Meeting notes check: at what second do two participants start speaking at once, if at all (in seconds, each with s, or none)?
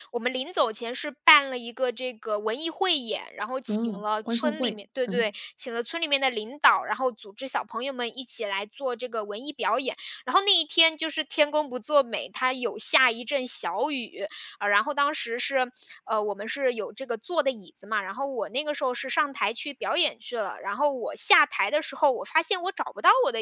3.7 s